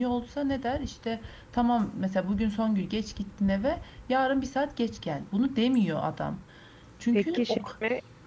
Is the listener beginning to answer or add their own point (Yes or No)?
Yes